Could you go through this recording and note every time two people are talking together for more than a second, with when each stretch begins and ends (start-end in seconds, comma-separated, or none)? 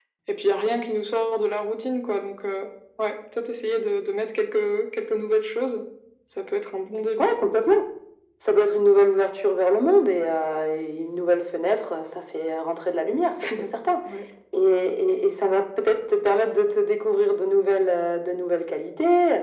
none